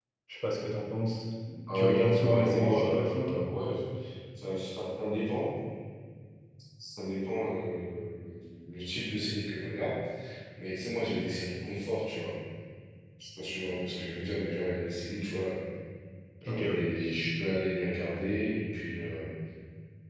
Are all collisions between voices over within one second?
No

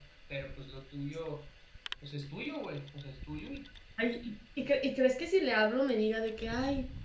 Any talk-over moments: No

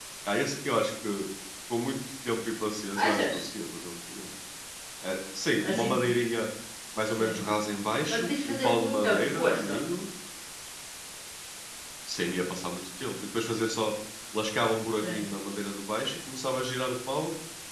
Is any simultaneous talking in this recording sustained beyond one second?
Yes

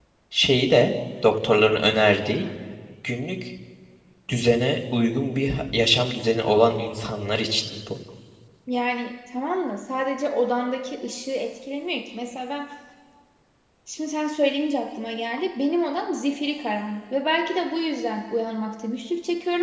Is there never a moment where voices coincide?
Yes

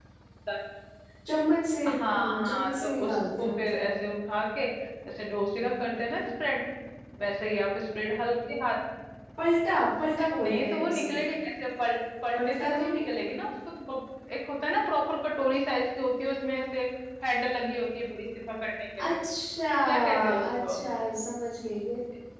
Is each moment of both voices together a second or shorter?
No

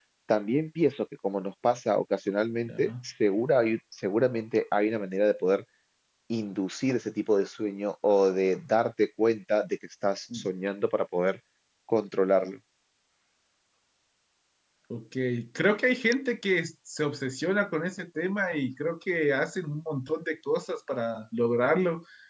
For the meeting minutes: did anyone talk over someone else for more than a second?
No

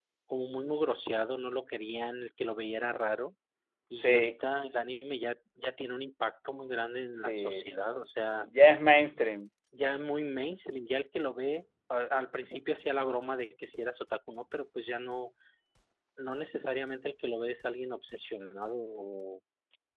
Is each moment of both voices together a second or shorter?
Yes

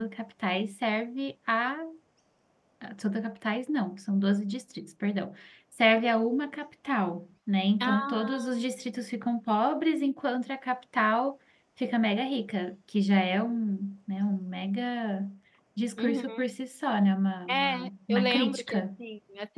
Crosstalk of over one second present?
Yes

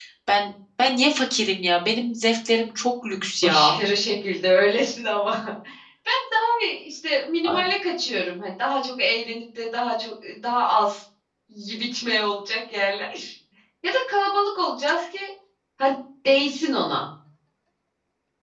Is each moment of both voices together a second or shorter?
Yes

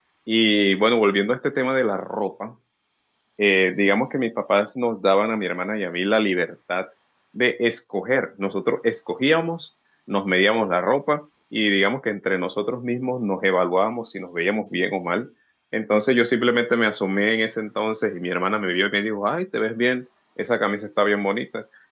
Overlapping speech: No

